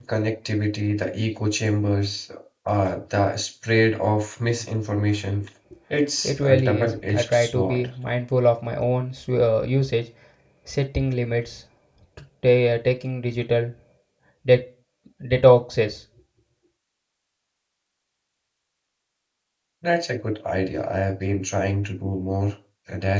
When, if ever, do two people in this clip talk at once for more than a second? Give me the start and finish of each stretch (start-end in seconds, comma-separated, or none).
6.2-7.8